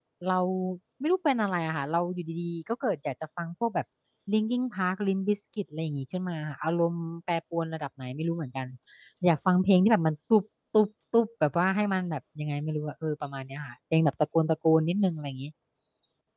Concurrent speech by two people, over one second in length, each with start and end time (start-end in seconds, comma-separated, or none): none